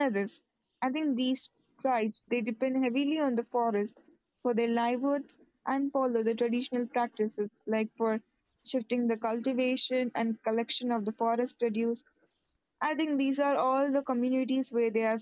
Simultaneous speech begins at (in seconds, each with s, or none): none